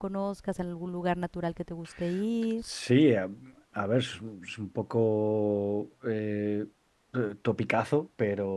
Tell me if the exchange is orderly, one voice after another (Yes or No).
Yes